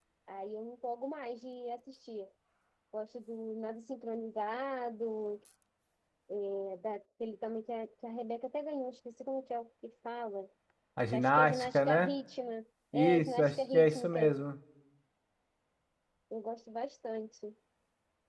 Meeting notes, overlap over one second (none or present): present